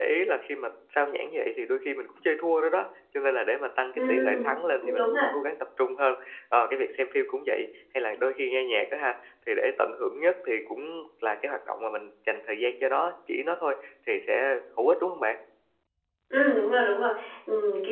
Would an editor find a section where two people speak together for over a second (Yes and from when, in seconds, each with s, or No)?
Yes, from 4.0 s